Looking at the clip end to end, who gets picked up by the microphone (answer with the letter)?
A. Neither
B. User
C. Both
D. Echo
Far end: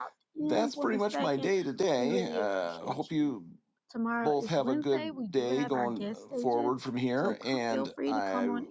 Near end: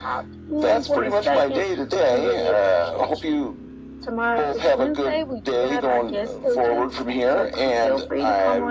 D